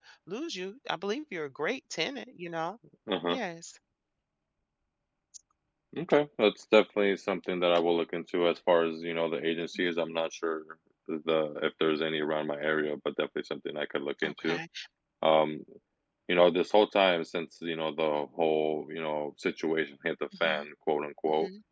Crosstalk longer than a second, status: none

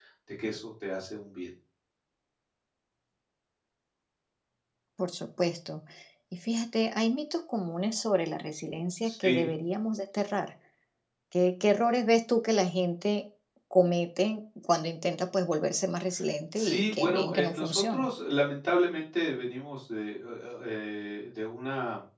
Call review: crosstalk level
present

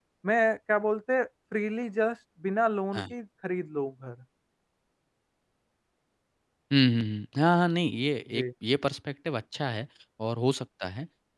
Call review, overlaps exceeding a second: none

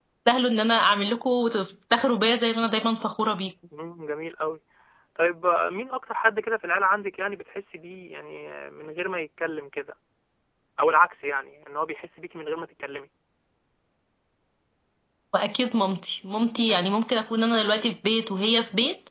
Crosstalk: none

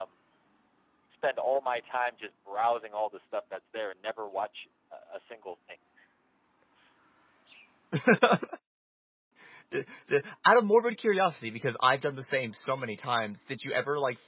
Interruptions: none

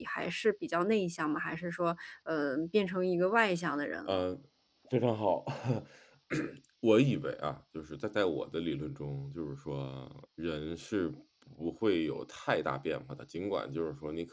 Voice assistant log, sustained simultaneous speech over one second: none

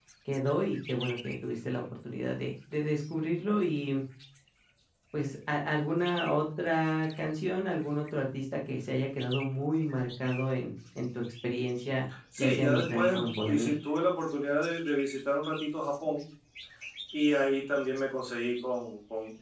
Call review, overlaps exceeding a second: present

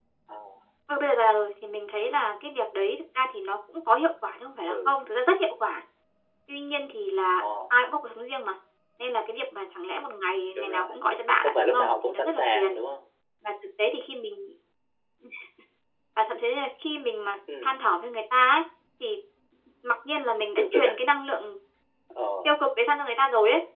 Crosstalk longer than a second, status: present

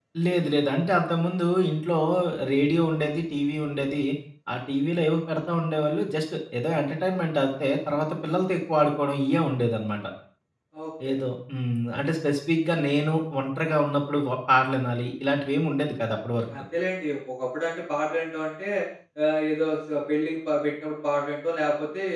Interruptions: none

